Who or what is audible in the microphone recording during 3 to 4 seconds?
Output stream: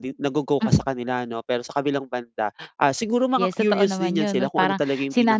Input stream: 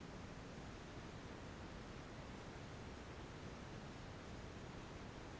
neither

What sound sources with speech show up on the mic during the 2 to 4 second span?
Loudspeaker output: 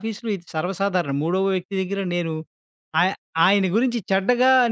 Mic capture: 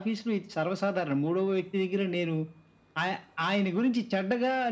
echo only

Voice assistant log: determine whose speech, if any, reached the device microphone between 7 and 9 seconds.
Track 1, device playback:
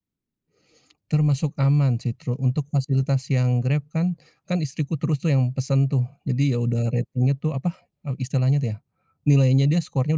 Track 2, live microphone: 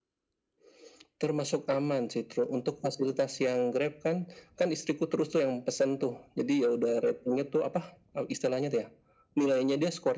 echo only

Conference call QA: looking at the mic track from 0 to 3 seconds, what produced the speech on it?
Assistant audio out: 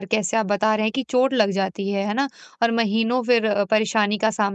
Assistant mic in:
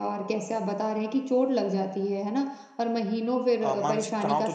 echo only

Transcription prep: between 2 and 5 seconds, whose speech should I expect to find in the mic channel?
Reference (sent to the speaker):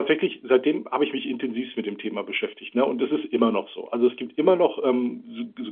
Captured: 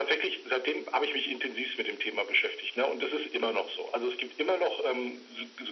echo only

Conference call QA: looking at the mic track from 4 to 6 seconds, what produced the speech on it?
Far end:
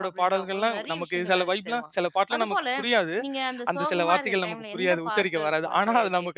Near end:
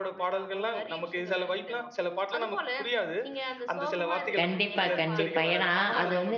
both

